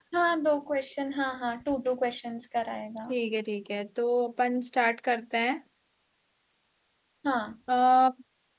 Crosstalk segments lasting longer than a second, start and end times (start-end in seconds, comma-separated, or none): none